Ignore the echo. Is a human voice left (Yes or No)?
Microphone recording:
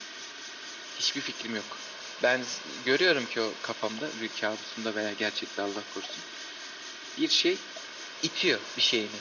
No